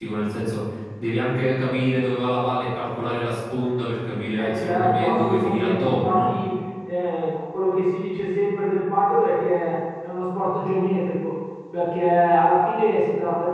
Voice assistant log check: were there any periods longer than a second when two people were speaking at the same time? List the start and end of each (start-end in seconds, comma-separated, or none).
4.3-6.3